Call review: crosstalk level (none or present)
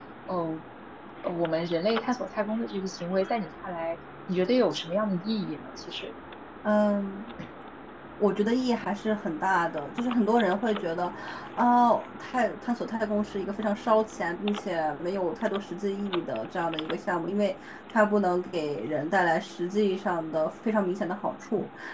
none